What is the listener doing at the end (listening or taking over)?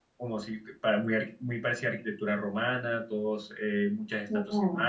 listening